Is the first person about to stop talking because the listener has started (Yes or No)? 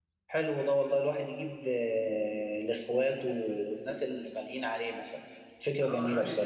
Yes